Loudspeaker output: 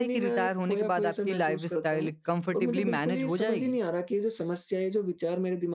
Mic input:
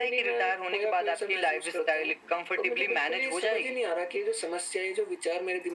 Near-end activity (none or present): none